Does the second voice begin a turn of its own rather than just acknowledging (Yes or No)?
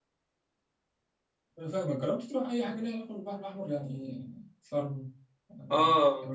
Yes